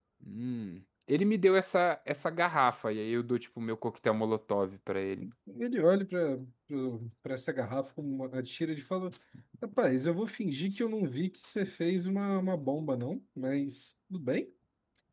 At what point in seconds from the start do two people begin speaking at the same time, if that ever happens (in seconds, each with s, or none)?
none